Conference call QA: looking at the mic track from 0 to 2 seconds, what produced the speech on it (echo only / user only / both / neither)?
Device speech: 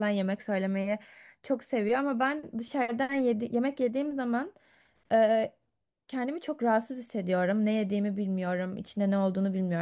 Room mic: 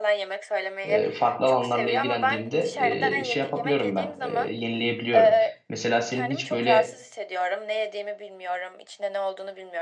both